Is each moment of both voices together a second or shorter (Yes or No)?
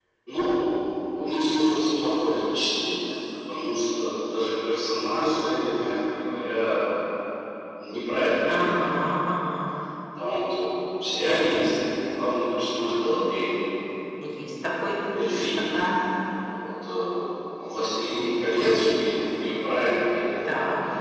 Yes